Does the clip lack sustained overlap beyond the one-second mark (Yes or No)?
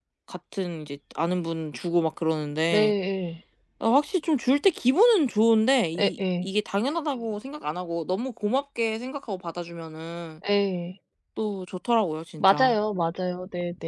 Yes